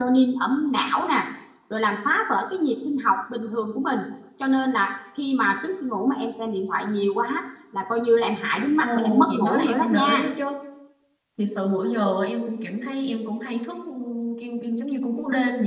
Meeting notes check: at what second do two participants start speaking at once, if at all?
8.8 s

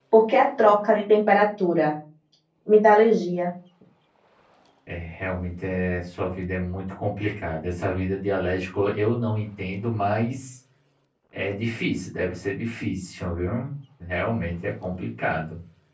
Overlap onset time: none

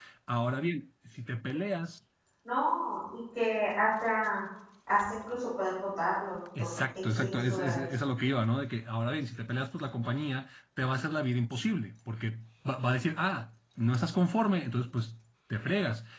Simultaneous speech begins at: 6.6 s

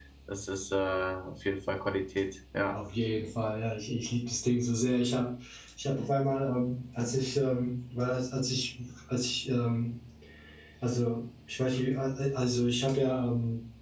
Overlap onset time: none

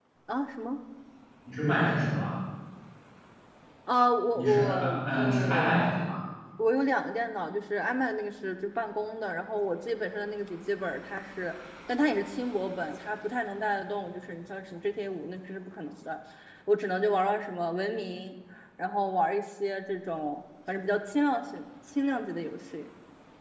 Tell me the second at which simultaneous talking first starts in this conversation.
4.4 s

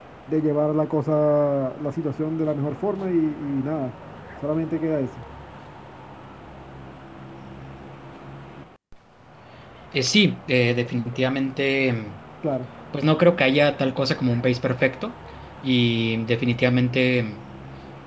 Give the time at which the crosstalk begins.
none

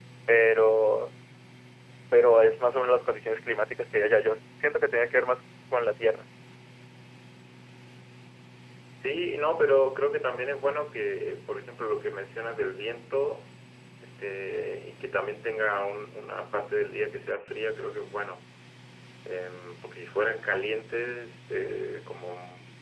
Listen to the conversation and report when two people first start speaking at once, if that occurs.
none

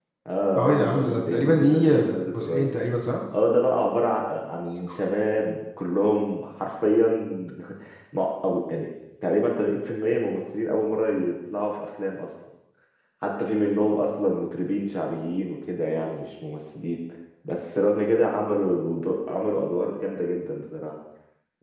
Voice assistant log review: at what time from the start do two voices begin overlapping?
0.6 s

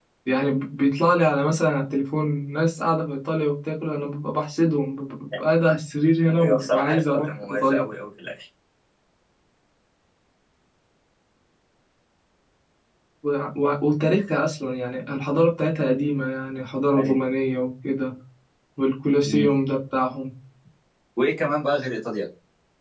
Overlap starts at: 6.4 s

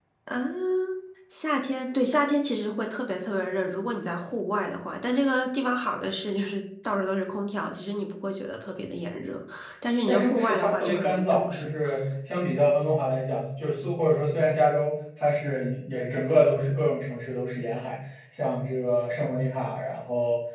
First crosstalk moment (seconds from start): 10.1 s

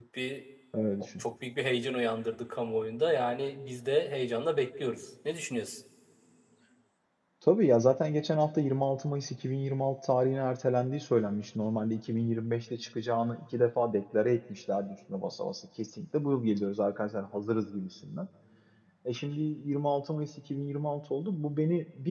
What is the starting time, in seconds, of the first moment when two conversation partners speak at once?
none

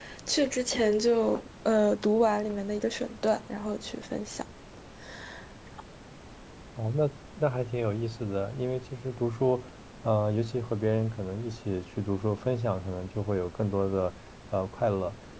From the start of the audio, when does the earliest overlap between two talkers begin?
none

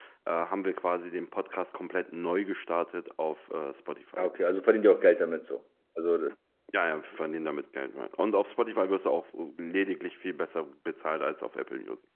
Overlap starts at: none

